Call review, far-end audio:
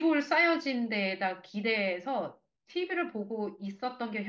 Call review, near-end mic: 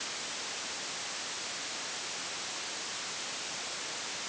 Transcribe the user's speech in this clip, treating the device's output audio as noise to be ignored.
none

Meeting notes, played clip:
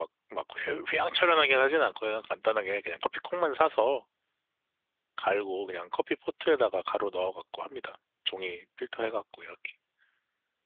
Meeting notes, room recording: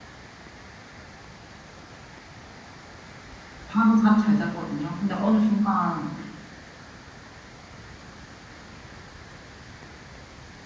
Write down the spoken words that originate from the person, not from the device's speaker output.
밤에 잠 잘 잤거든요. 근데 어느 순간

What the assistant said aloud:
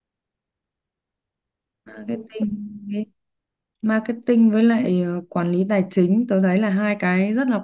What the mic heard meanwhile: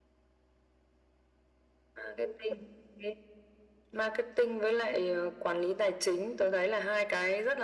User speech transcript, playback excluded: none

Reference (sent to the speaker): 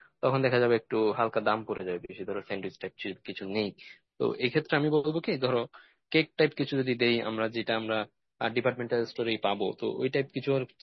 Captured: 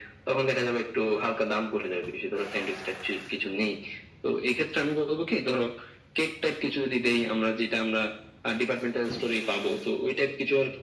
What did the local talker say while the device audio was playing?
none

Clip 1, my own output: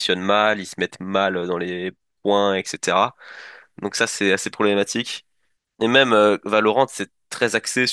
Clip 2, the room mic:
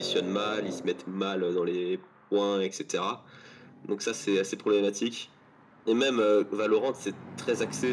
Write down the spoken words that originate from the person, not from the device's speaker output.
none

